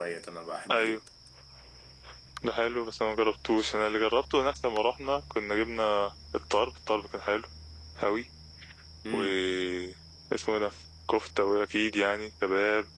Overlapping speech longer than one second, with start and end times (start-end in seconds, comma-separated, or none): none